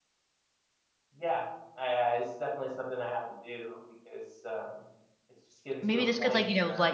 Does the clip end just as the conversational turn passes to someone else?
Yes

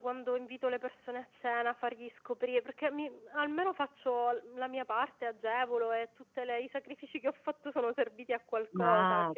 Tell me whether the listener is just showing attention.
No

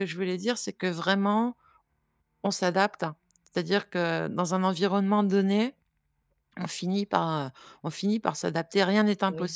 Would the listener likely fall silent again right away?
No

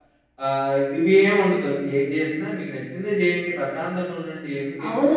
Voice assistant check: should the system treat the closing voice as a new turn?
Yes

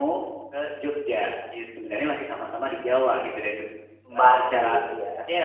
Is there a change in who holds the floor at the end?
No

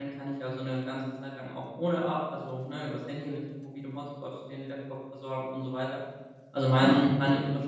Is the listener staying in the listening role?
Yes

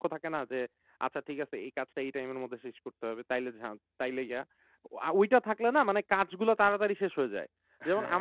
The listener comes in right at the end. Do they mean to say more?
No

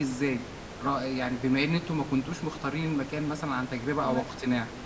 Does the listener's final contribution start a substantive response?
Yes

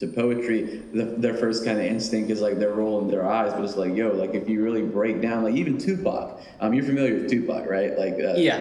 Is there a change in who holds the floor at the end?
No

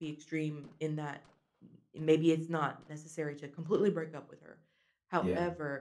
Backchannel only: Yes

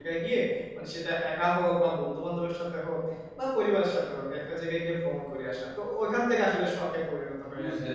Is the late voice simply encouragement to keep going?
No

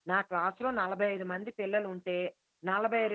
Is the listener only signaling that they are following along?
Yes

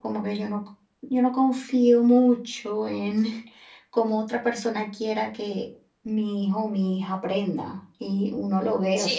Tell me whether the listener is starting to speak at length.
Yes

